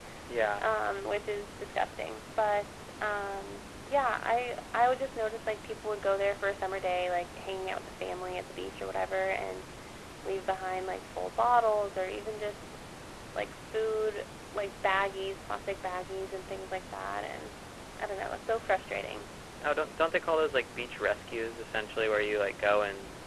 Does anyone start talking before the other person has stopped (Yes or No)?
No